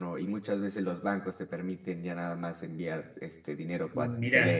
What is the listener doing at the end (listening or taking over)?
taking over